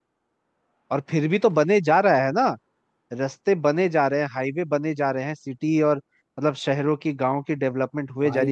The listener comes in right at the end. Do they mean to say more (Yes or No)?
Yes